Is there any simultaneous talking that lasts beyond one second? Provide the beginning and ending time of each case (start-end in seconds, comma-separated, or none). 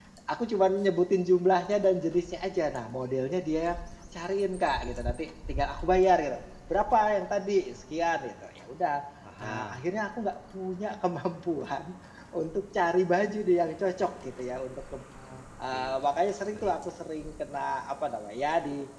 none